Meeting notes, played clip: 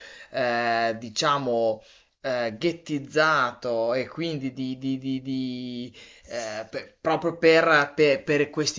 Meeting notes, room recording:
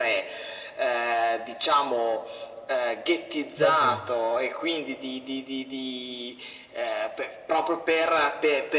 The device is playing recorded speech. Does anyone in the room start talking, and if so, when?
4 s

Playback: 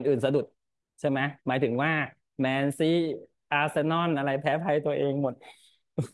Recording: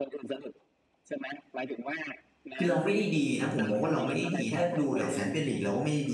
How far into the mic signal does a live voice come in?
3 s

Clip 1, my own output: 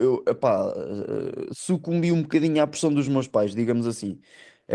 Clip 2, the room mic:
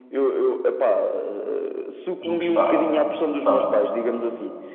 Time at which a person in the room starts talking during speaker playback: 2 s

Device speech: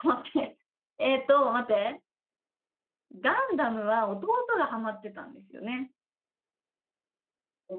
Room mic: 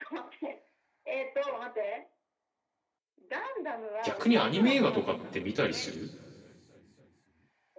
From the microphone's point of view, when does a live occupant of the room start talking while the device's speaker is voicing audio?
4 s

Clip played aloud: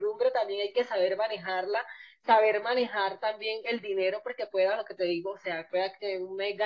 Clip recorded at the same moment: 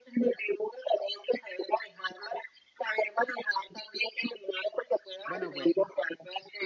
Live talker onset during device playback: 5 s

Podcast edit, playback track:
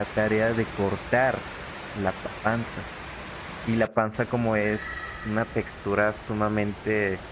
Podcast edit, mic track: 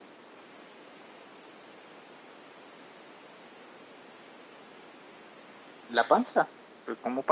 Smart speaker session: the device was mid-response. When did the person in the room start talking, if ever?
6 s

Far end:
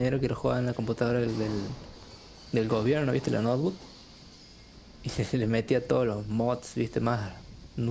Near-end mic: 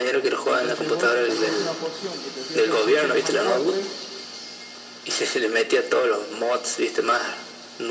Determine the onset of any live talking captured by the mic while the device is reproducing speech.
0 s

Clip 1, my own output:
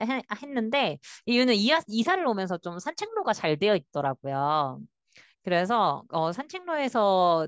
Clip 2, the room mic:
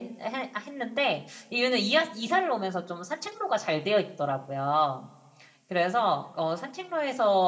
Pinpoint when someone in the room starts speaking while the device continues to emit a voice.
none

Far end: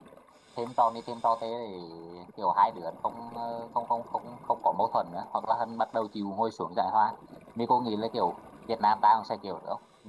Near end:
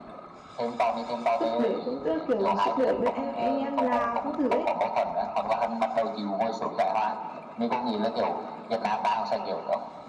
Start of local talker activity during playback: 1 s

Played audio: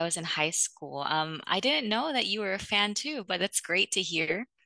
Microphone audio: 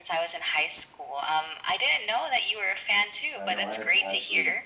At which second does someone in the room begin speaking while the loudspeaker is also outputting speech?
3 s

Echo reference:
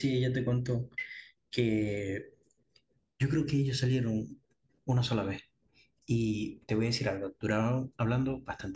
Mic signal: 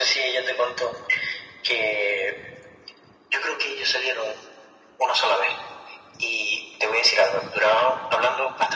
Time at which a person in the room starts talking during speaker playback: none

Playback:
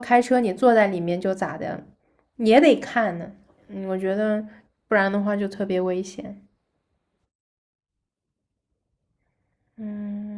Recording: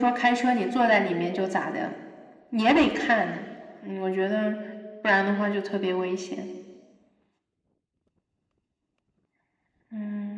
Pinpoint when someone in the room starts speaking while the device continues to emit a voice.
none

